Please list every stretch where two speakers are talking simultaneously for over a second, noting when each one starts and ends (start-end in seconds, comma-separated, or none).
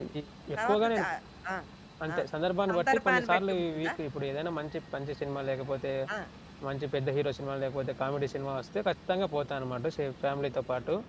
2.7-3.9